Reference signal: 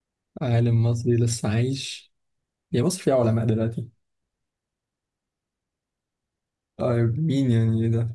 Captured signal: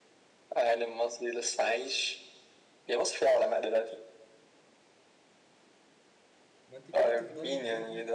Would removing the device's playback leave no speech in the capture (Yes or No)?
No